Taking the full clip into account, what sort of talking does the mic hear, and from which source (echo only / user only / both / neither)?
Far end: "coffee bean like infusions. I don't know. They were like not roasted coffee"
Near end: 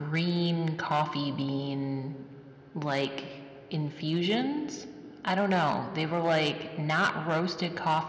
echo only